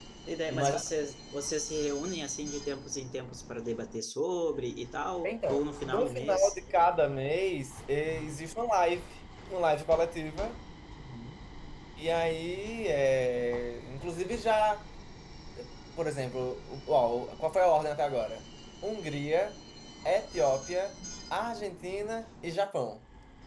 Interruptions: present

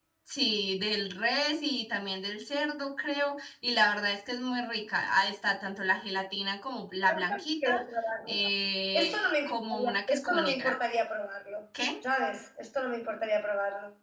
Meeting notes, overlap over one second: present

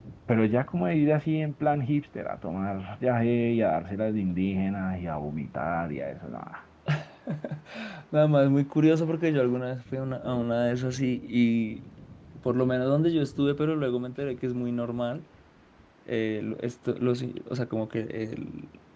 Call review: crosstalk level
none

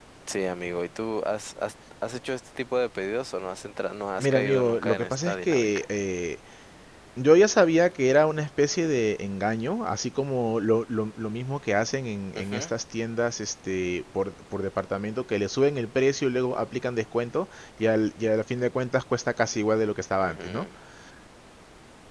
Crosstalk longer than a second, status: present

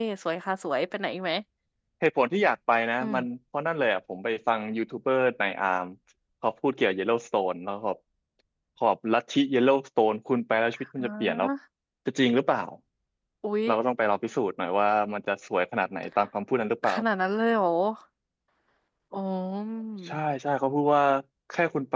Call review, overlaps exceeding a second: none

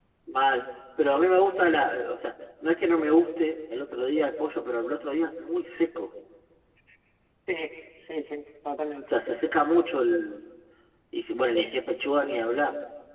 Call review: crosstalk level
none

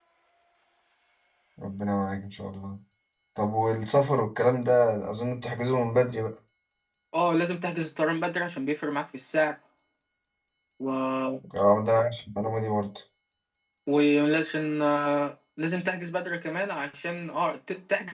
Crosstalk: none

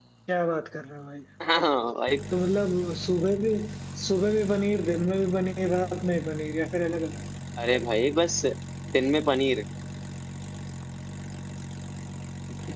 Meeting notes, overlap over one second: none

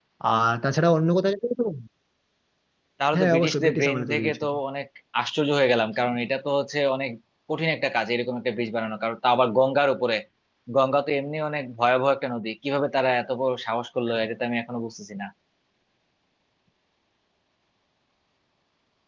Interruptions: present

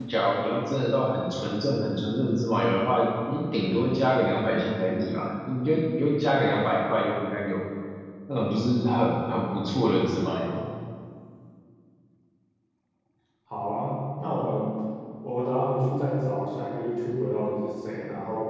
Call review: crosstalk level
none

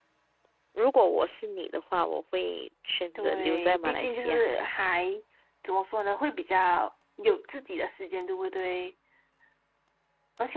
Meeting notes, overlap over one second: present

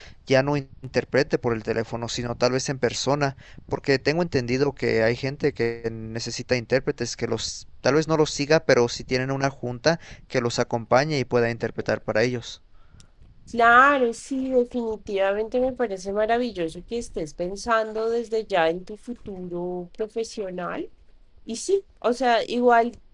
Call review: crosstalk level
none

